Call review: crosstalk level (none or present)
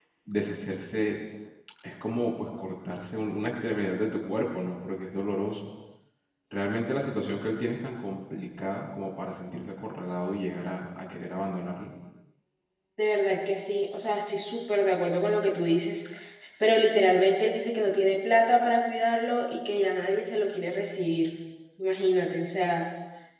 none